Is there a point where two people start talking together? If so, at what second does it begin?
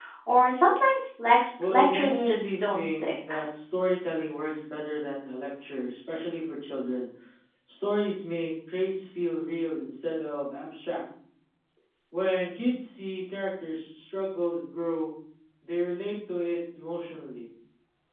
1.6 s

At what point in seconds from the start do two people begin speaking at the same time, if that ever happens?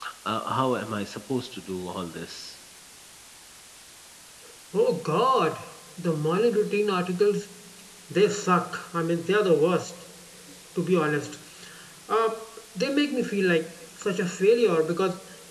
none

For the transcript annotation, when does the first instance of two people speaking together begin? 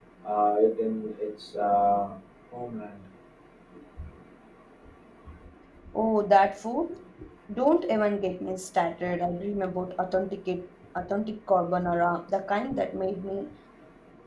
none

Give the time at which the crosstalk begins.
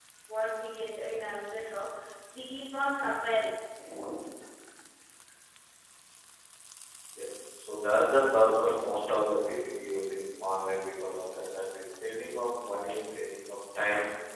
none

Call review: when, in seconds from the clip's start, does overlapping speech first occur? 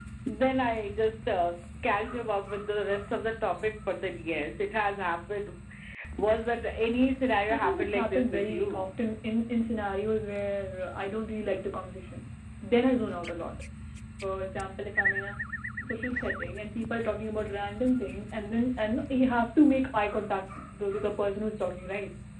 7.5 s

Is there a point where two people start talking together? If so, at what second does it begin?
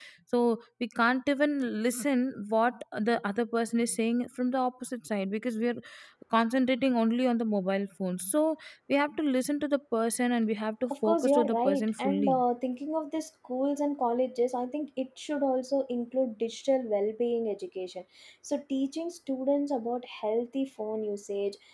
10.9 s

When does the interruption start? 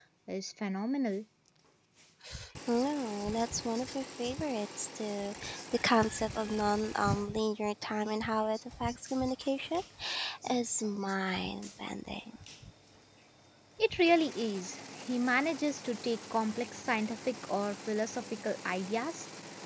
none

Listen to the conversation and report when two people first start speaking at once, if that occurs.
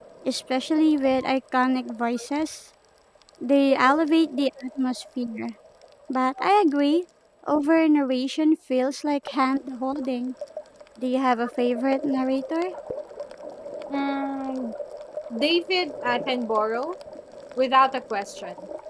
none

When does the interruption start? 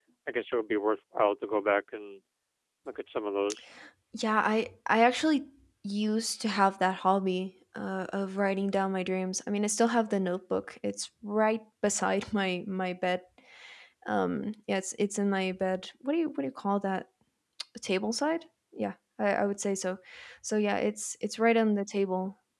none

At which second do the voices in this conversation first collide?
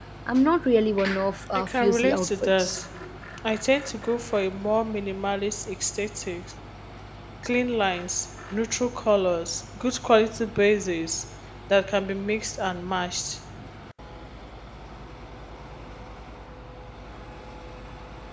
1.6 s

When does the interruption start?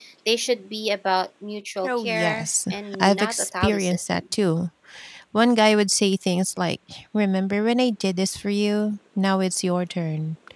1.8 s

